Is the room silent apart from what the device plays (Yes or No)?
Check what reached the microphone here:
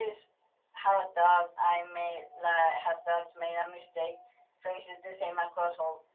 Yes